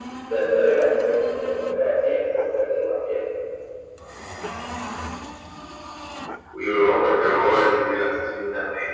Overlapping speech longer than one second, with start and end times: none

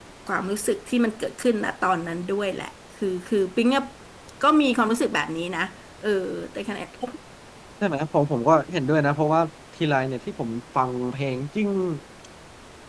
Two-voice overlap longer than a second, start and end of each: none

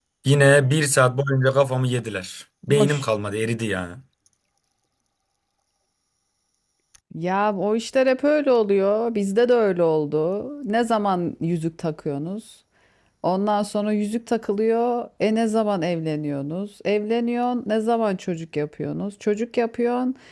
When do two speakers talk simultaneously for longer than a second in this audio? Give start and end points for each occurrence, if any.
none

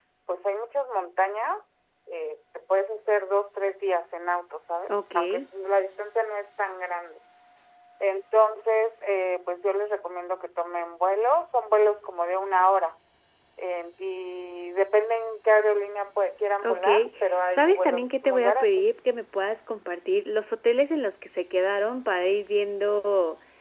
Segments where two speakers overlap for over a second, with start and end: 17.6-18.9

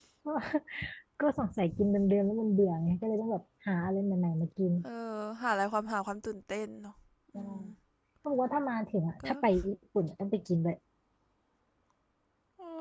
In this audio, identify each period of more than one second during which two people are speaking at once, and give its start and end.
none

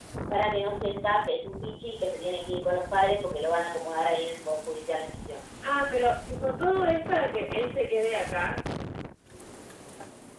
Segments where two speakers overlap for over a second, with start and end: none

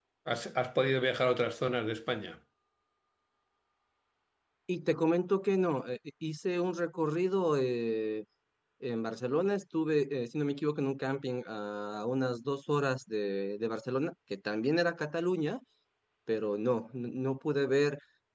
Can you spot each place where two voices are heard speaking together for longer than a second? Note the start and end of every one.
none

